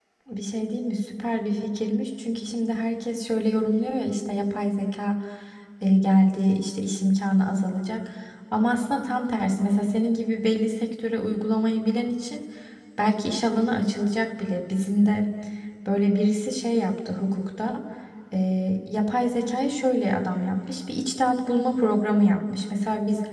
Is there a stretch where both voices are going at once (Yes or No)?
No